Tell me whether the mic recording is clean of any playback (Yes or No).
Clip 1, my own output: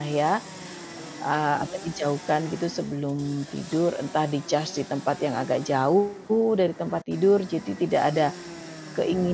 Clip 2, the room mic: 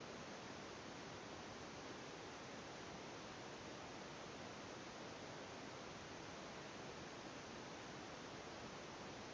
Yes